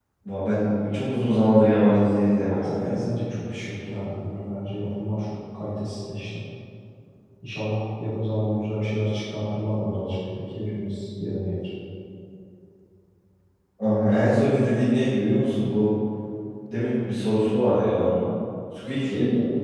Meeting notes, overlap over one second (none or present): none